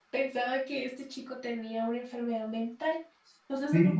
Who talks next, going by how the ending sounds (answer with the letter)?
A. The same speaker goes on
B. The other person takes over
A